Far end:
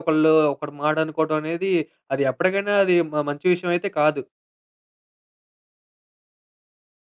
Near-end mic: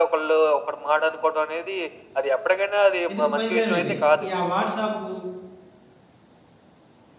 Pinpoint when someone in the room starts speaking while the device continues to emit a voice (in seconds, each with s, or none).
3.1 s